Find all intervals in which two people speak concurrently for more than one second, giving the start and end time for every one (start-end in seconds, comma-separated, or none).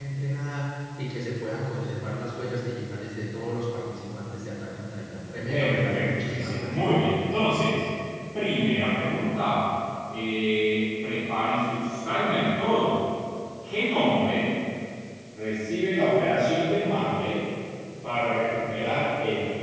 5.5-6.9